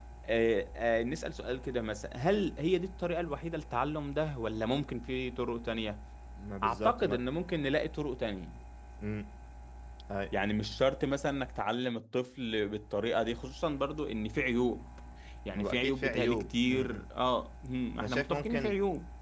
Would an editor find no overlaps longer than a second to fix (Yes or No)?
No